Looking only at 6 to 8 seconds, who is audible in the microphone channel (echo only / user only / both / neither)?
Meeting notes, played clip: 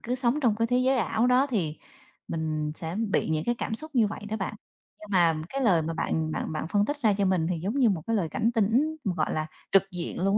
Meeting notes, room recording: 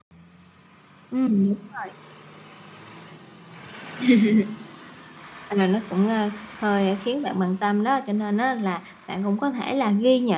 user only